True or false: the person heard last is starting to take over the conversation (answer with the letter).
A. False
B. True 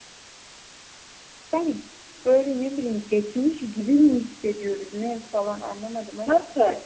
B